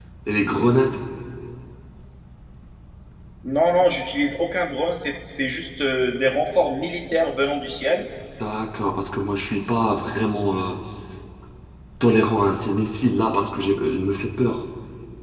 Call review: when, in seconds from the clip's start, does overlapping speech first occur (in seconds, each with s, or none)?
none